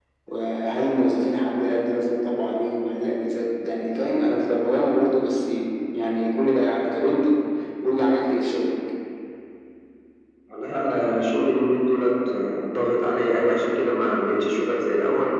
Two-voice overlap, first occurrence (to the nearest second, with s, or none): none